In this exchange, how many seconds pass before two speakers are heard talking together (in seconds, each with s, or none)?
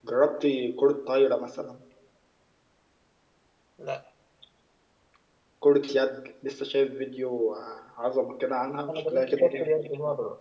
8.9 s